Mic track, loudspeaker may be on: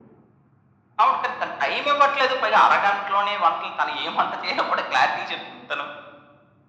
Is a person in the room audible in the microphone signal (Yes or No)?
No